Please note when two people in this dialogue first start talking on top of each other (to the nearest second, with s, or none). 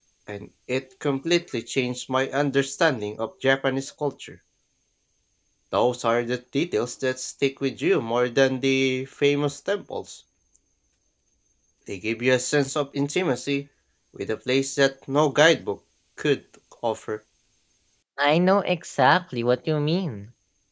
none